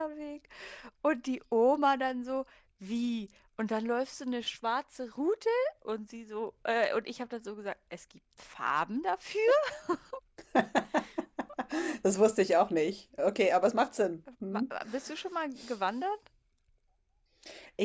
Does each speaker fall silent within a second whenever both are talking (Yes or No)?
Yes